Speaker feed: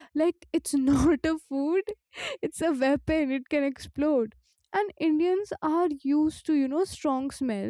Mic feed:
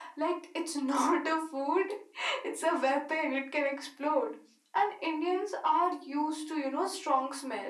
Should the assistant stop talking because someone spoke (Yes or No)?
No